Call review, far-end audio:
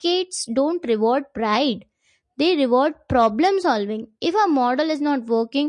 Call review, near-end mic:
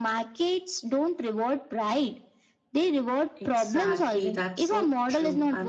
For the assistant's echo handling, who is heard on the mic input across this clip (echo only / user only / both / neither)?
both